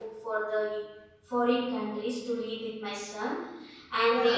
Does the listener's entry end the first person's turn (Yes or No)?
Yes